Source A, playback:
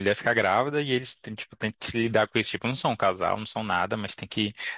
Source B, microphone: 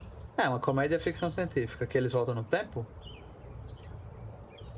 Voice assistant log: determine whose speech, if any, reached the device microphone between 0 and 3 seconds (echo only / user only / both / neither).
user only